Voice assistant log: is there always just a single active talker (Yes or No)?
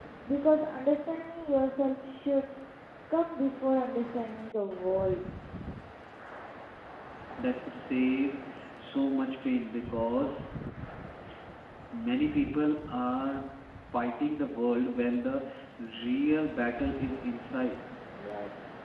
Yes